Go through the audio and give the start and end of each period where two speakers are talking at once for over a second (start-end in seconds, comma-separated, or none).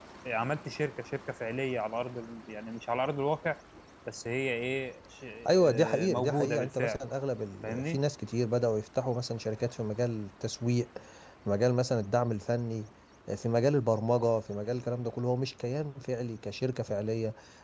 5.5-7.0